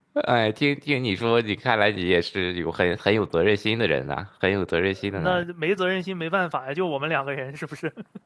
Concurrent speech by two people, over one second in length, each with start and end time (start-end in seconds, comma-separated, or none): none